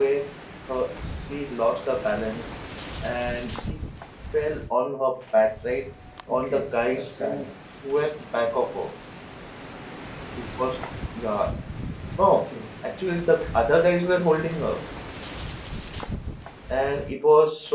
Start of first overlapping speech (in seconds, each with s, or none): 6.3 s